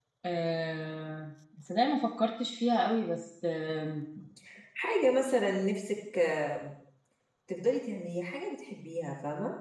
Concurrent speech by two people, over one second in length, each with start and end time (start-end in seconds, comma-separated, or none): none